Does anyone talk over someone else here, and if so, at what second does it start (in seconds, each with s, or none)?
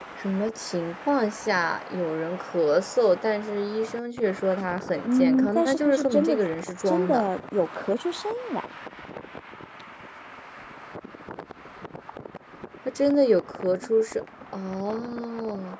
5.0 s